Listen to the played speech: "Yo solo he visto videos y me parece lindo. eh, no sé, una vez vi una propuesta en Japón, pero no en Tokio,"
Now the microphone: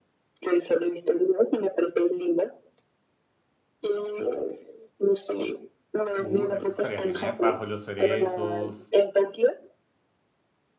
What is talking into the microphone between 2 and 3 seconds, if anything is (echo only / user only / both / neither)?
echo only